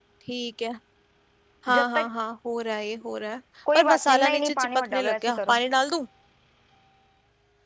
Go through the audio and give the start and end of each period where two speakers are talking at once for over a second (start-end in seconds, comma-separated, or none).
3.8-5.6